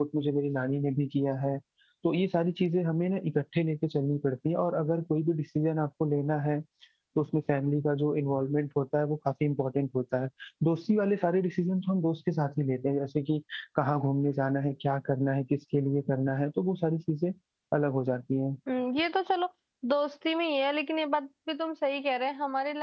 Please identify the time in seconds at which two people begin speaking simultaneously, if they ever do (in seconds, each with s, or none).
none